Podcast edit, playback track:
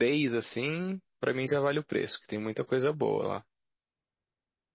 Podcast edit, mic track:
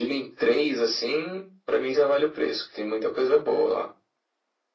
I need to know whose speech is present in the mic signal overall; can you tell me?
echo only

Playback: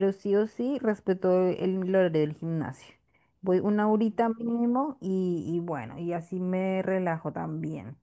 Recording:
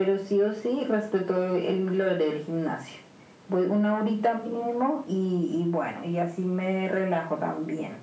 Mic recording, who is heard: echo only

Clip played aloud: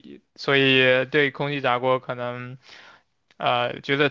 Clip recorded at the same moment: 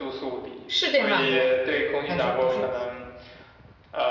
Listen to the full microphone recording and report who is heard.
both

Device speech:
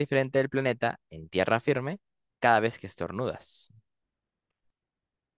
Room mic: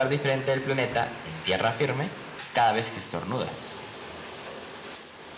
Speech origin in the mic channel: echo only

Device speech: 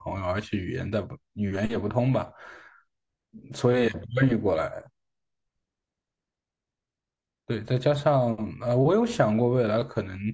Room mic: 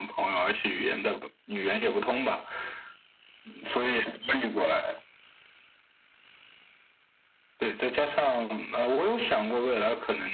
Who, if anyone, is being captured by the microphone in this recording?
echo only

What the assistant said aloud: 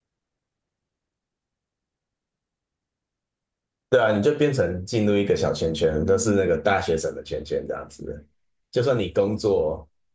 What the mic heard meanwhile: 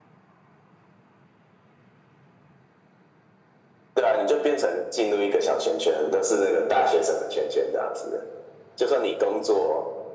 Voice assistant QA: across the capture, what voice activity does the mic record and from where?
echo only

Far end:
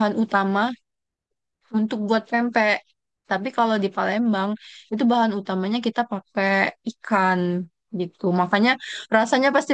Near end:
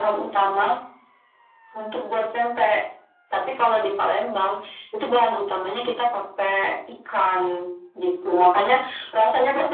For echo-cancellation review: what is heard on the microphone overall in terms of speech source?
echo only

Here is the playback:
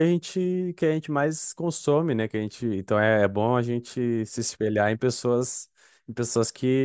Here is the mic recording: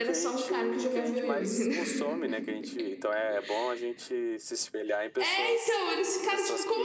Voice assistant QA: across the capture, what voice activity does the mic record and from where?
both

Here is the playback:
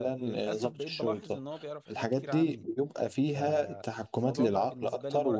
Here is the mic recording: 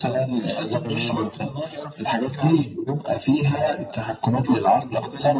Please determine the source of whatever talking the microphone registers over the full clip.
both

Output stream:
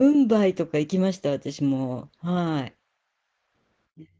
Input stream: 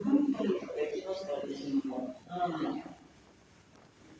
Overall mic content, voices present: echo only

